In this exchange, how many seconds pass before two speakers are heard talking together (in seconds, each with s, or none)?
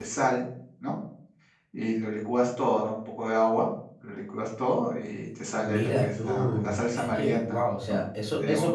5.6 s